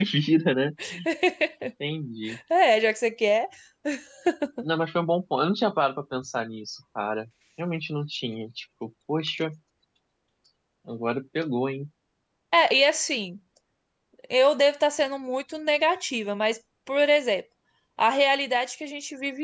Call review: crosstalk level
none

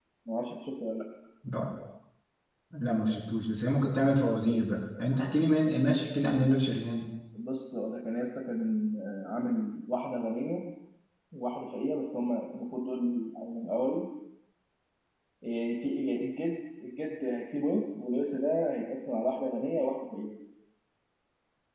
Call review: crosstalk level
none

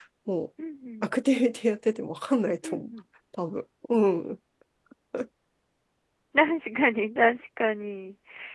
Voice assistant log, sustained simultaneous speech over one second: none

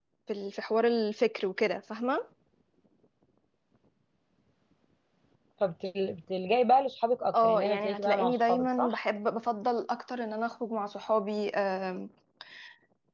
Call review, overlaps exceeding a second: present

